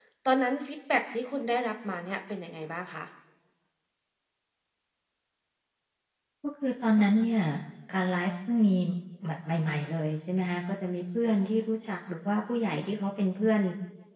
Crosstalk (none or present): none